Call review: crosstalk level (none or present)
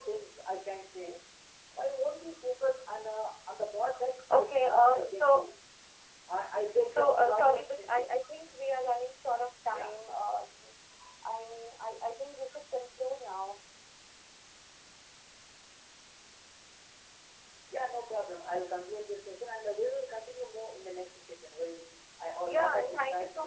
present